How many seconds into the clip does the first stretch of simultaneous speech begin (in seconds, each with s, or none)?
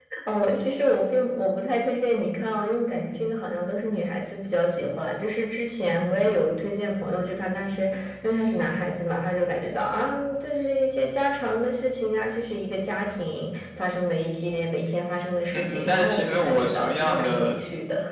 15.5 s